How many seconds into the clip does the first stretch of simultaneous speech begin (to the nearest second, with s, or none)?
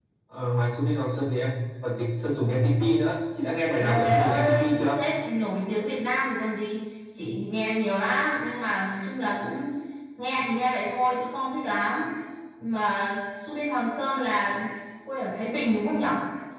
4 s